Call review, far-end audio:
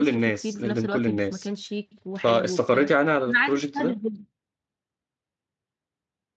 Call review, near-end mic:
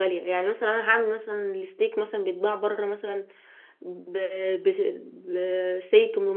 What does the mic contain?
user only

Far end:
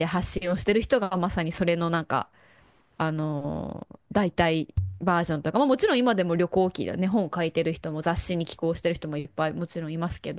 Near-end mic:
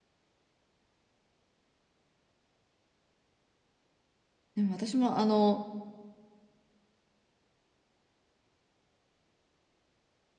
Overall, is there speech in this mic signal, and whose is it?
user only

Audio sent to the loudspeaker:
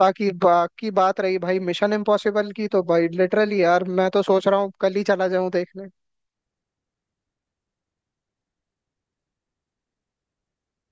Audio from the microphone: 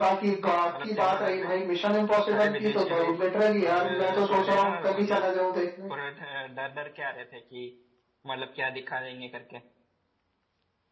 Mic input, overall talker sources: both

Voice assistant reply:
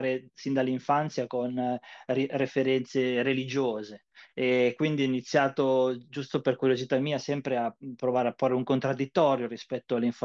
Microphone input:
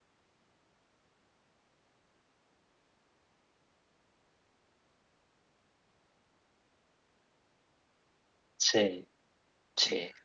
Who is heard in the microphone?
user only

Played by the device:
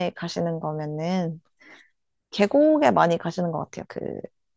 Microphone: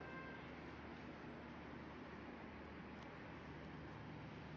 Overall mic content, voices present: neither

